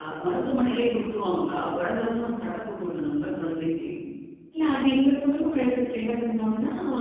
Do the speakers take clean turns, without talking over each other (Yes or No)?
Yes